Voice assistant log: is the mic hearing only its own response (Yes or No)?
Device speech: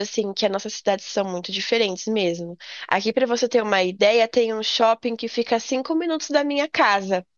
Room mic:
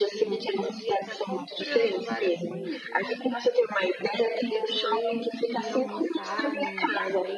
No